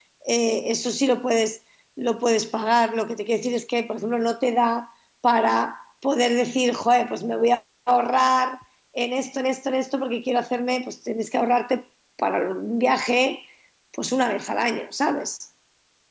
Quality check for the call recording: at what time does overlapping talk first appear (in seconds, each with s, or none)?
none